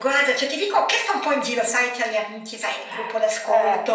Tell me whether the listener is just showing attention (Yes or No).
Yes